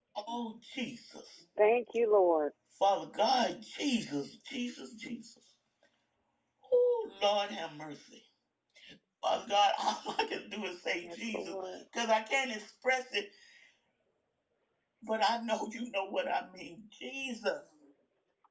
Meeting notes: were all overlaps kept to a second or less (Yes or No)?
Yes